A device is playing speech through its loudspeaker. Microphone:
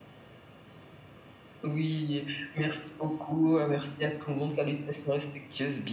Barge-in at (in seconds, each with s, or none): none